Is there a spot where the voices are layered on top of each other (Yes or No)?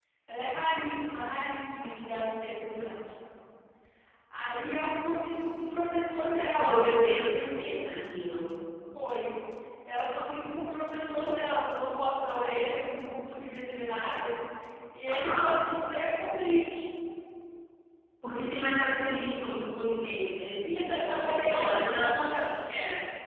Yes